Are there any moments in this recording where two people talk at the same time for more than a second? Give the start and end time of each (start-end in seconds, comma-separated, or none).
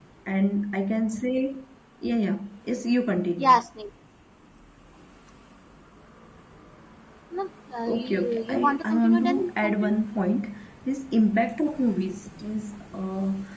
7.9-10.0